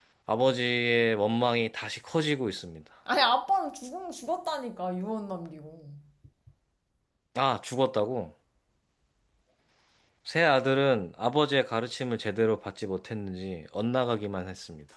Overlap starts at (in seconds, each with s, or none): none